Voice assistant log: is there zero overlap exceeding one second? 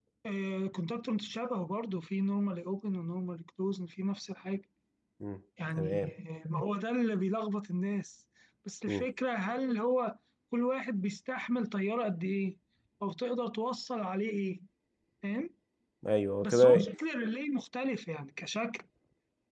Yes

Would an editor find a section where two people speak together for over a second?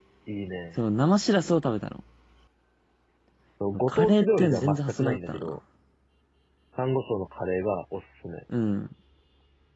Yes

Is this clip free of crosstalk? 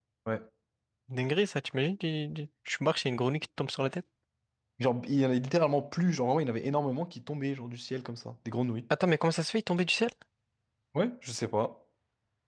Yes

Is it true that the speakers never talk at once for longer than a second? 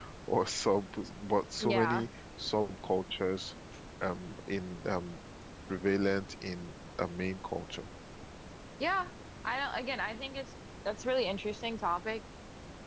Yes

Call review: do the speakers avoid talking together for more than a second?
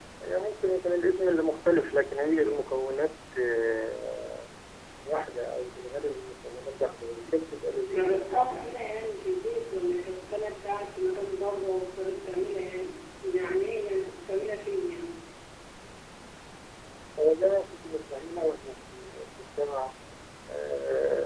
Yes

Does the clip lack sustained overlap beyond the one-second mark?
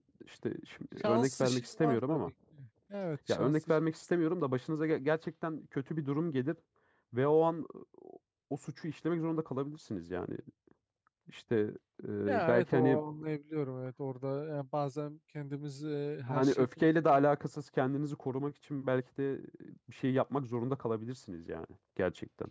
No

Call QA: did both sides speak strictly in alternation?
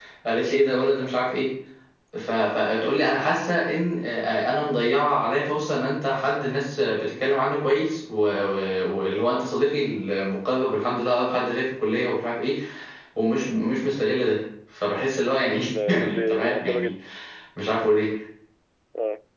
No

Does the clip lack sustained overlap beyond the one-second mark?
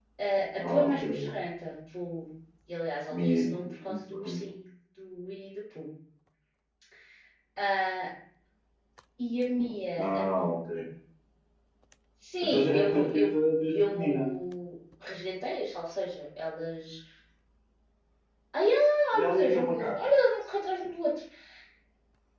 No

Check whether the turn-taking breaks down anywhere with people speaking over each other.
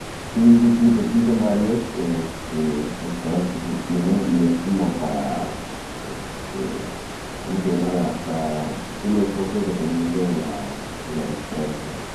No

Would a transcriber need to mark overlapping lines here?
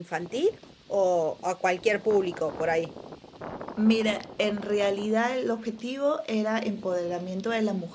No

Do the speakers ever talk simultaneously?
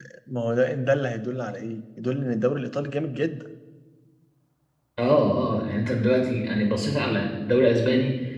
No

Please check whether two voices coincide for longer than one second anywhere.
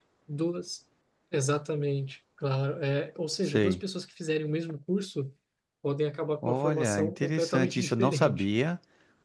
Yes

